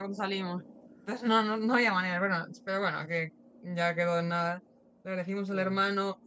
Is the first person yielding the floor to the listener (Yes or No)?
No